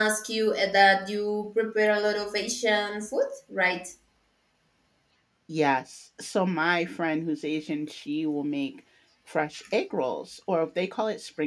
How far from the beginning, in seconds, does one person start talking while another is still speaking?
none

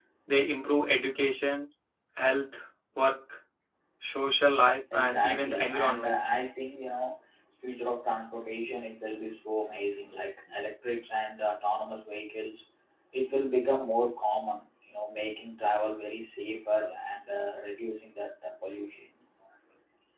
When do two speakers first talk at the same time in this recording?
4.9 s

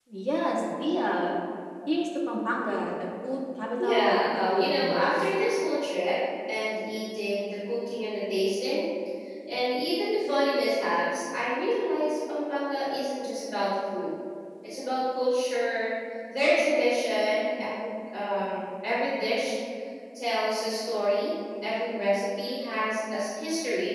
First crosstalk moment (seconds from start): 3.8 s

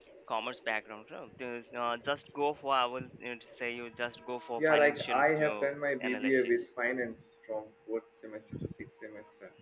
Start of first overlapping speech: 4.6 s

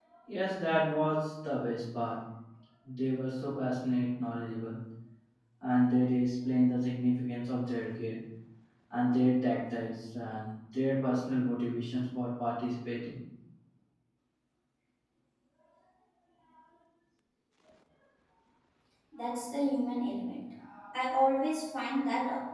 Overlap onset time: none

